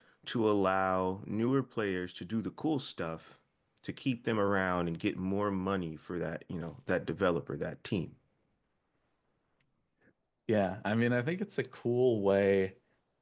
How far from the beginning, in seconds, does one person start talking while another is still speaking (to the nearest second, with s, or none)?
none